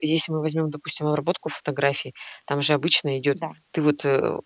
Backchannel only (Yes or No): Yes